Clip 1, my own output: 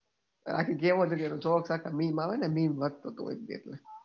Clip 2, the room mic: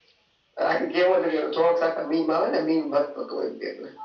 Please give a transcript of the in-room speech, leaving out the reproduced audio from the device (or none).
none